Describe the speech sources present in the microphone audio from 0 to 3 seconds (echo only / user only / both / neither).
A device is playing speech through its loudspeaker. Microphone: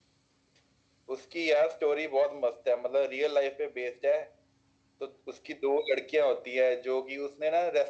echo only